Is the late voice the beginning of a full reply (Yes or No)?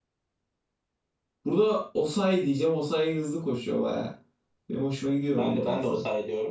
Yes